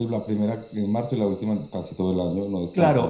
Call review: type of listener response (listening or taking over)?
taking over